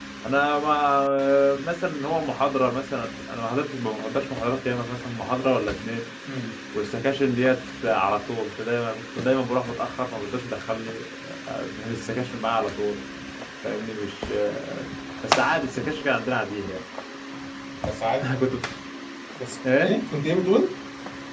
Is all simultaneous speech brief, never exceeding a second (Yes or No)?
Yes